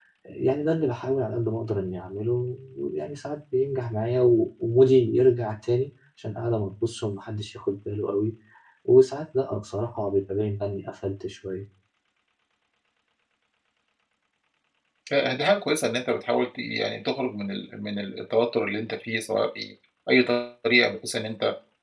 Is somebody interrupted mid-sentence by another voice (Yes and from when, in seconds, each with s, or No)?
No